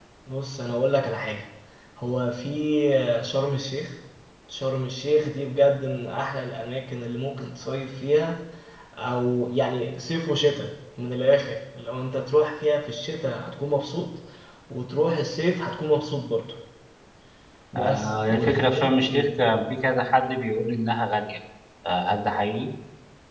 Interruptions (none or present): present